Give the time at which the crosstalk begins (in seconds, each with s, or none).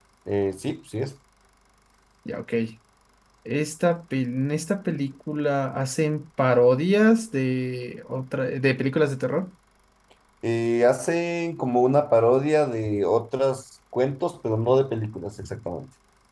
none